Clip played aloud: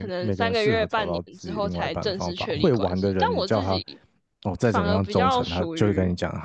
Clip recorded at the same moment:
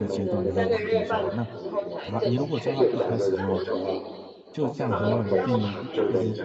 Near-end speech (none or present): present